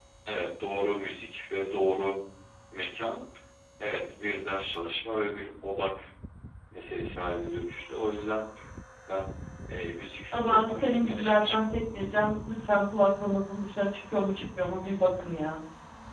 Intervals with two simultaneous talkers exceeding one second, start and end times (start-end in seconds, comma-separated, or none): 10.3-11.7